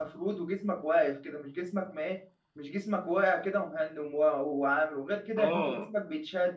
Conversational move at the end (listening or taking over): listening